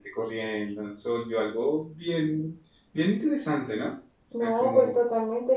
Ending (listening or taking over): taking over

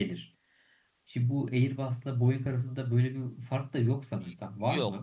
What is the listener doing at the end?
taking over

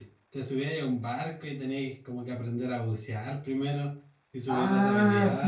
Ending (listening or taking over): taking over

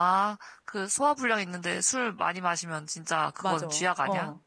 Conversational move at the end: taking over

